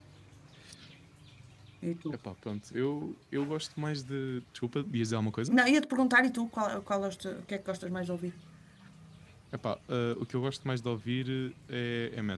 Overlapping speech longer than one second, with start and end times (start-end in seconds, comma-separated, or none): none